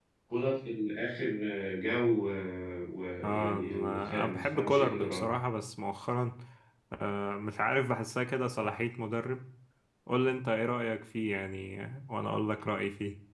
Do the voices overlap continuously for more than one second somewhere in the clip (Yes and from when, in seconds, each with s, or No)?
Yes, from 3.2 s